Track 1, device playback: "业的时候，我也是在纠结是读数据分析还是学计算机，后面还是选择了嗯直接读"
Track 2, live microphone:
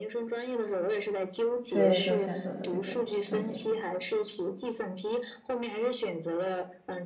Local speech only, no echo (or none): 所以就选择了这个专业。